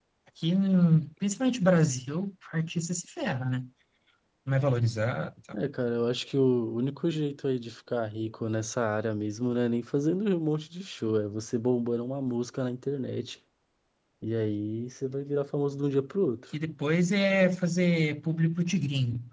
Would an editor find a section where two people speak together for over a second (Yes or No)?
No